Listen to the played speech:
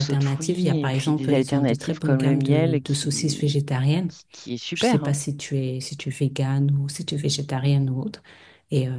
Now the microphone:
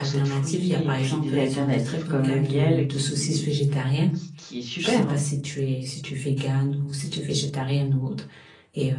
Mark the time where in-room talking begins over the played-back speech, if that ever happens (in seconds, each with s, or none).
none